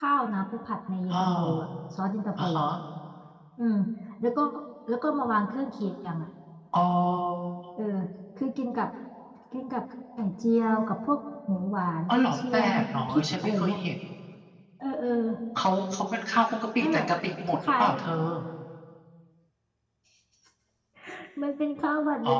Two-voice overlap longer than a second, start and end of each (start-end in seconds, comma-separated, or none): 12.1-13.8